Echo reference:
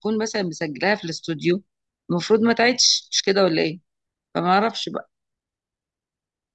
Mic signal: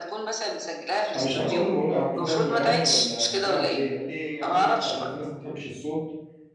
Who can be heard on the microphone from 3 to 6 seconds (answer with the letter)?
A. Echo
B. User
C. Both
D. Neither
C